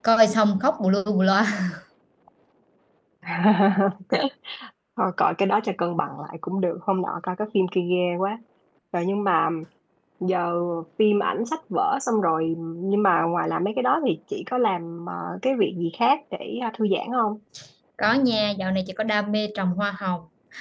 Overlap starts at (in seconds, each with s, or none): none